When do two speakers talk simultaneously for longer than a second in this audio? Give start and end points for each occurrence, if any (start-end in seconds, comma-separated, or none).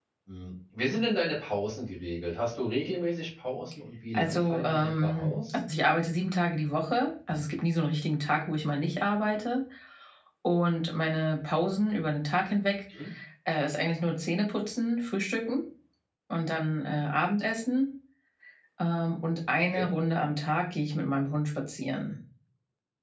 4.1-5.6